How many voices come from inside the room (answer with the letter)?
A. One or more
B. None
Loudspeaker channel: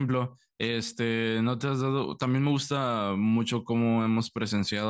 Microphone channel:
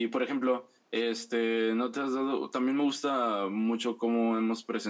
B